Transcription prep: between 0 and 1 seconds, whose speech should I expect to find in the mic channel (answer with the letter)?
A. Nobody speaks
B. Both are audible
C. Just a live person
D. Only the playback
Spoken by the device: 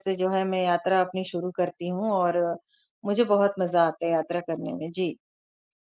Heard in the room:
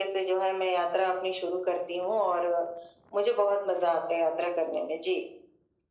D